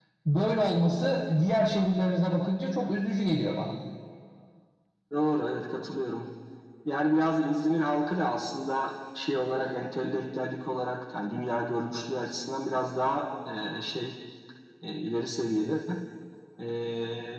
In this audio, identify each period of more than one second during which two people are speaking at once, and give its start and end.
none

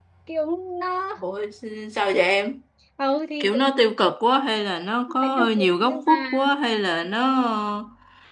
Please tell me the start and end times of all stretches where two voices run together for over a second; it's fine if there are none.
5.2-6.5

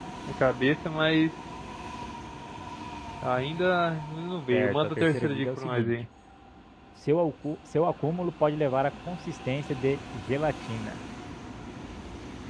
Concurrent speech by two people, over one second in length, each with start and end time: 4.5-5.9

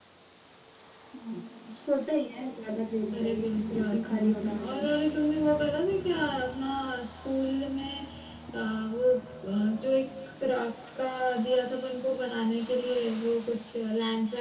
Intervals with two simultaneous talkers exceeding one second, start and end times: 3.1-4.9

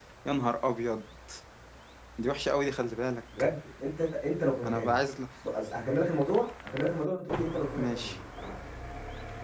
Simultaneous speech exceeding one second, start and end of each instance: none

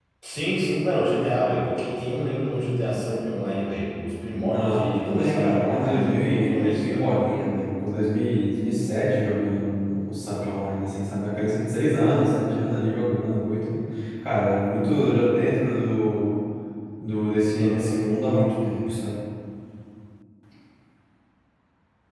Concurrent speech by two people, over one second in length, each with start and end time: 4.5-7.1

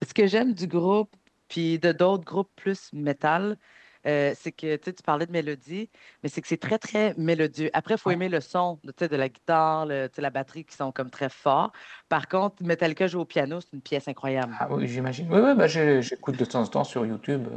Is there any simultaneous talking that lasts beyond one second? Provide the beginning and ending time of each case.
none

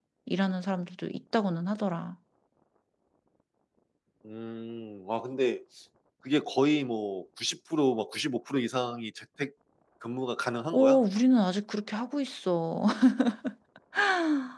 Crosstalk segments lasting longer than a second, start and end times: none

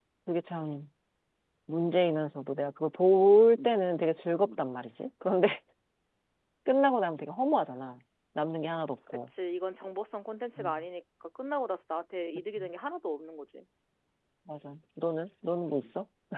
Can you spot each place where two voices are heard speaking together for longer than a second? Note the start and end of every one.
none

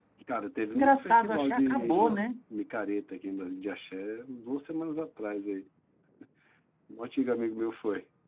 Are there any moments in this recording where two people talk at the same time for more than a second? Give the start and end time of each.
0.7-2.2

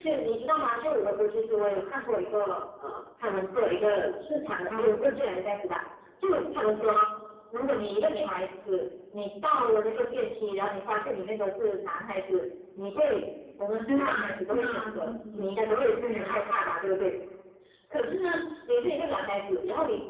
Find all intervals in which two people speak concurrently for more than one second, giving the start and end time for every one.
13.9-15.4

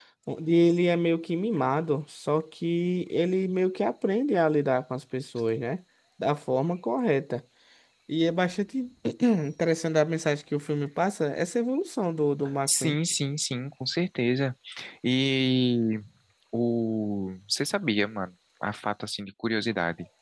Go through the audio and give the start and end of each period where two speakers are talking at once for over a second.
none

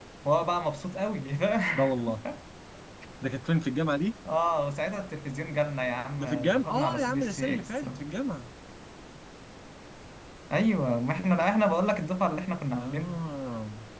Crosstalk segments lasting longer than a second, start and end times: 6.2-8.0

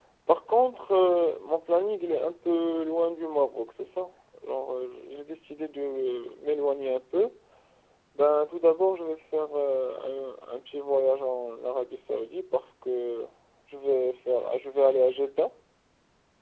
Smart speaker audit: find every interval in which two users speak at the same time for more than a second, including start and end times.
none

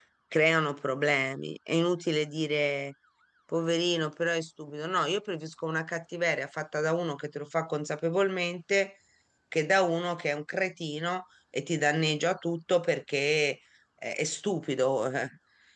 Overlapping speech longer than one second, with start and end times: none

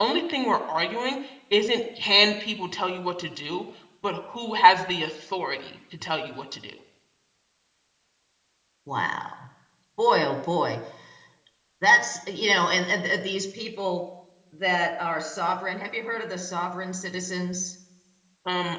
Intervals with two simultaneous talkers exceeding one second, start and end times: none

